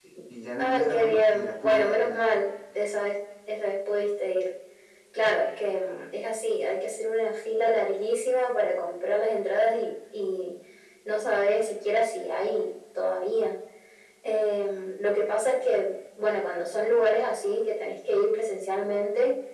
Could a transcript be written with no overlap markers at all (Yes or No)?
No